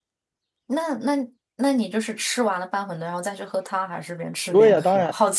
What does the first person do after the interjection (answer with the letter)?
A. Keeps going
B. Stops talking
B